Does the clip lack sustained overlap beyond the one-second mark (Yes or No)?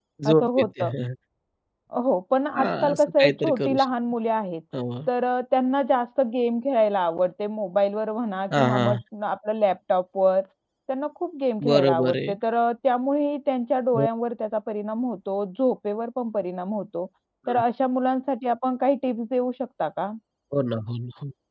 No